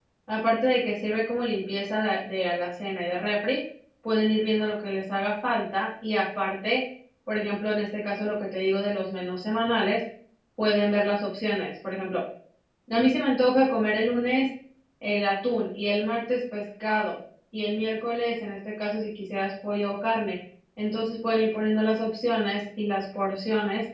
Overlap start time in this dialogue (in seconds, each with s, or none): none